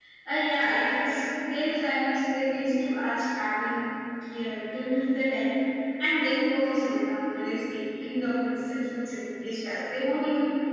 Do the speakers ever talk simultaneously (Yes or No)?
No